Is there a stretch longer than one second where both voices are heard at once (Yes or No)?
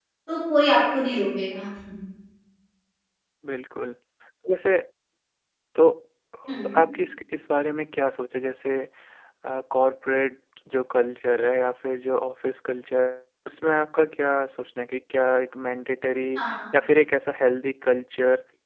No